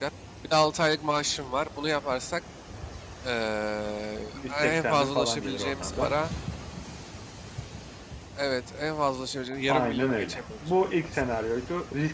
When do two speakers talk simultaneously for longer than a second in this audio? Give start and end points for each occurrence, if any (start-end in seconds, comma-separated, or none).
4.3-6.1, 9.7-11.2